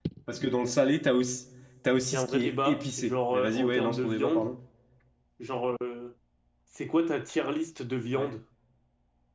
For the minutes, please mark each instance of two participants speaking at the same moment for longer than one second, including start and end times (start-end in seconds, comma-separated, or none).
2.1-4.5